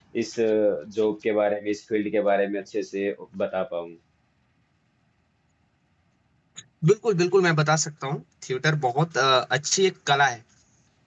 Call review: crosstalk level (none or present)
none